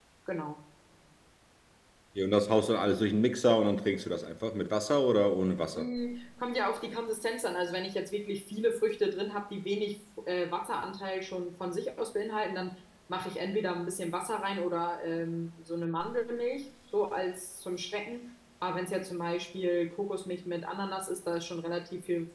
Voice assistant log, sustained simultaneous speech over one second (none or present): none